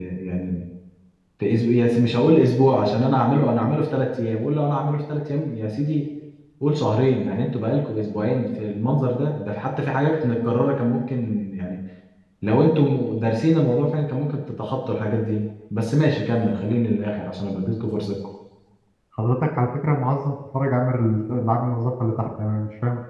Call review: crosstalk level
none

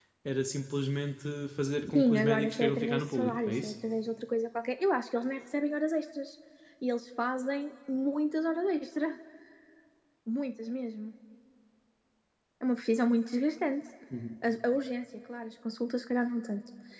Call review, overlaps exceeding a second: present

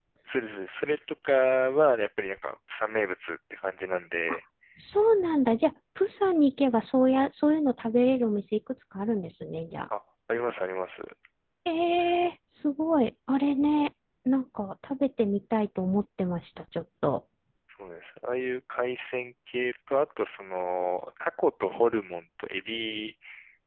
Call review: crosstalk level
none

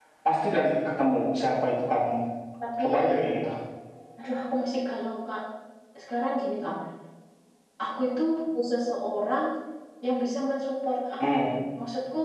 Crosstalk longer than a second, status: none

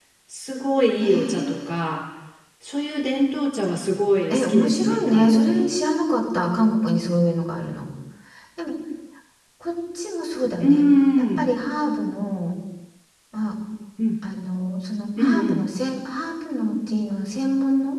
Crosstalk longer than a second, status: present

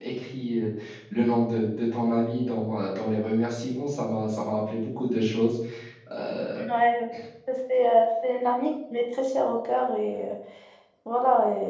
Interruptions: none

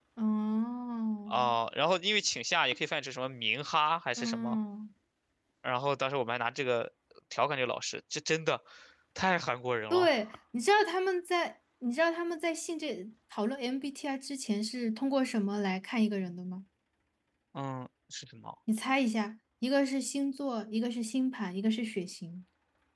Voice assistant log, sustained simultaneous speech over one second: none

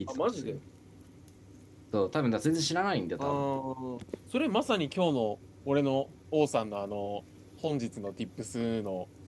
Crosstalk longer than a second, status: none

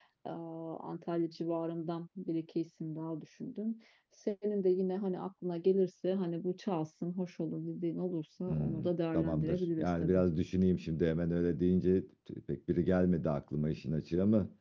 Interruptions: present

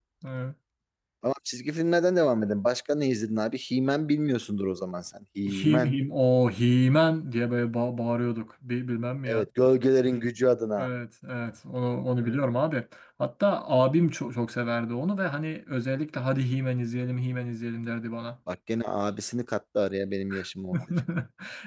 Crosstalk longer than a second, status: none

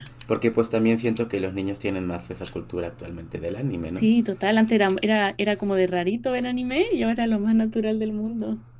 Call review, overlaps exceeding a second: none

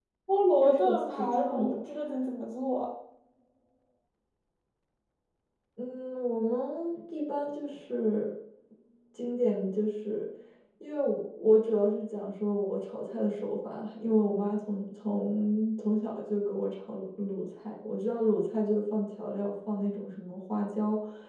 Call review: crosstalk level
present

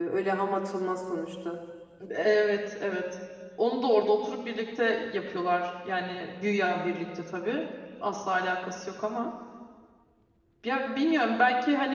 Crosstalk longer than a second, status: none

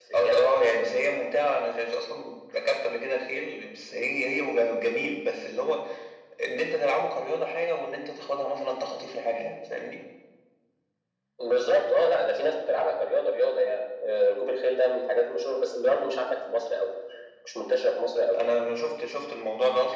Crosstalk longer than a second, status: none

